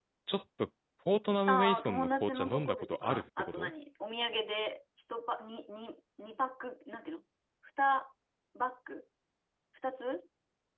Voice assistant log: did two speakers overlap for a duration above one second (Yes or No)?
Yes